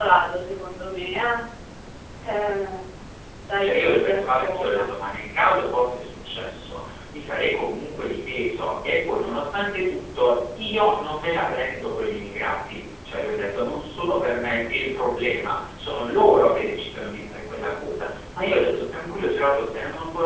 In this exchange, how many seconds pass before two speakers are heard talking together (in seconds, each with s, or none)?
3.6 s